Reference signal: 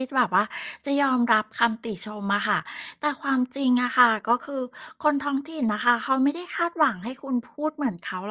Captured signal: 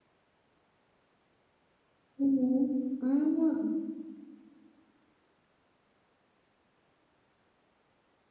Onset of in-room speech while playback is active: 2 s

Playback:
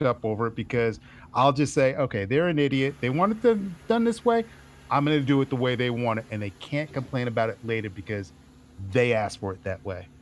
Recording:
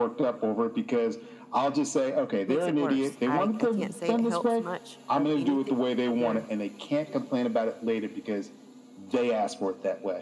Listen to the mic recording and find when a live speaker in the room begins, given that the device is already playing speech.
2 s

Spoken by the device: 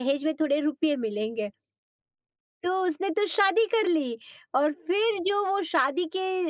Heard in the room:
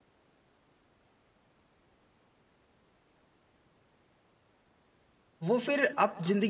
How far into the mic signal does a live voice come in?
5 s

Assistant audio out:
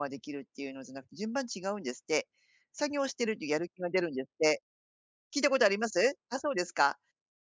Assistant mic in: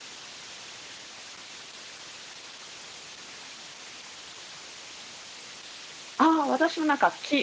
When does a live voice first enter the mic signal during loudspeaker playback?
6 s

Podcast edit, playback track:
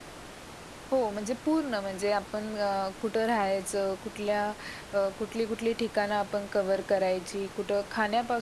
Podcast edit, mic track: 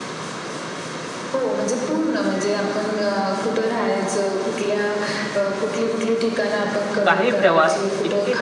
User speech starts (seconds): 7 s

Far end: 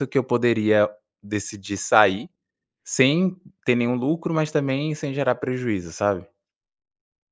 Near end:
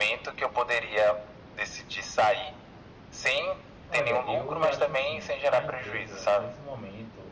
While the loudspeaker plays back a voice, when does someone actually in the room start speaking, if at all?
4 s

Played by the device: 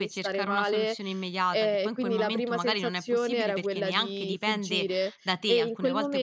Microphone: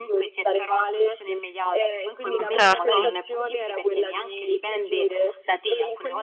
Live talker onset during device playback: 2 s

